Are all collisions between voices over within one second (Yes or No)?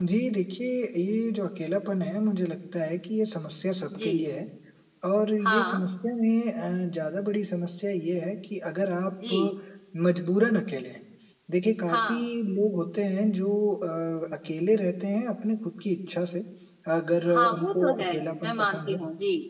No